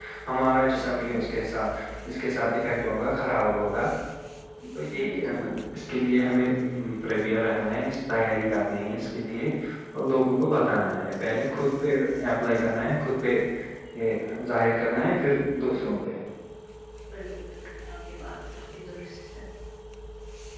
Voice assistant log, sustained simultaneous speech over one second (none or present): none